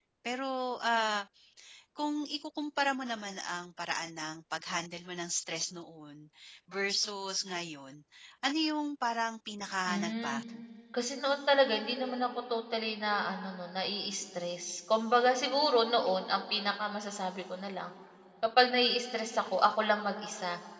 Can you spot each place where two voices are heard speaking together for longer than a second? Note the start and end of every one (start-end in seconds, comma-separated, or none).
none